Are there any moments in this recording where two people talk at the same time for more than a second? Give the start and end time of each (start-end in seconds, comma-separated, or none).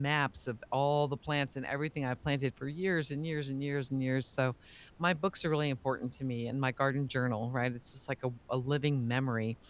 none